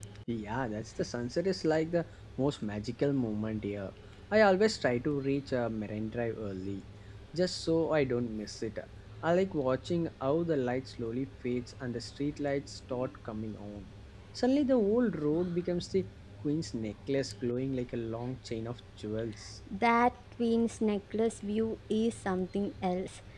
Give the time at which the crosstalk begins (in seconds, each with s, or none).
none